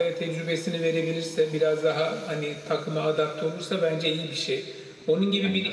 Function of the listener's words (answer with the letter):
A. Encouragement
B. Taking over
A